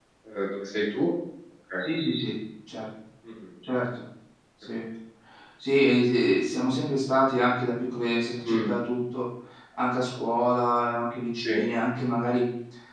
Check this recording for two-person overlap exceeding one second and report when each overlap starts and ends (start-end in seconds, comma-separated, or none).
none